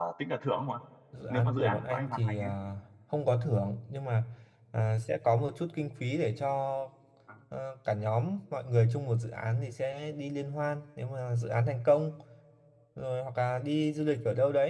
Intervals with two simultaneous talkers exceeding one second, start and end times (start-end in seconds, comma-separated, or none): 1.3-2.5